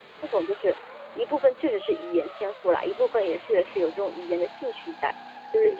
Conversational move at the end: taking over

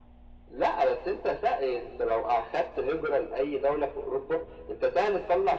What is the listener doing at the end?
taking over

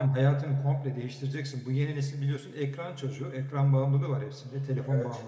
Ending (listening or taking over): listening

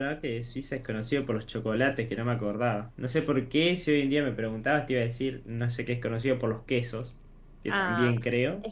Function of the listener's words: taking over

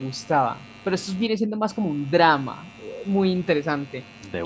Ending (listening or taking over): listening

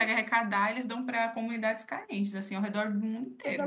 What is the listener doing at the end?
taking over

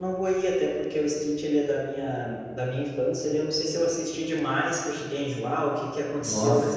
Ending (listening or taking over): listening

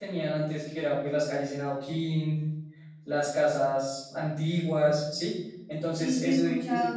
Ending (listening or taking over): taking over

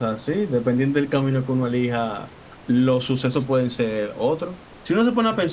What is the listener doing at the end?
listening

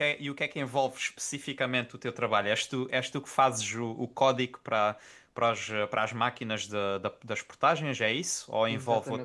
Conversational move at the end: taking over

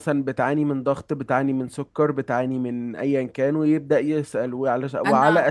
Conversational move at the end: listening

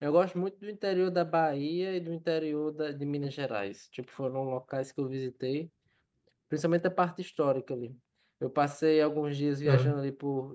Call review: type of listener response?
listening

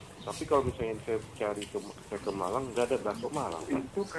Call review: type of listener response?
taking over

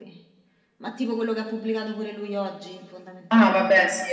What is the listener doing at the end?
taking over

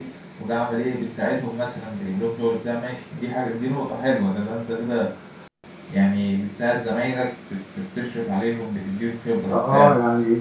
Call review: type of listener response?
taking over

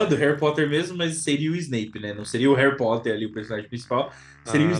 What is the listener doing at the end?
listening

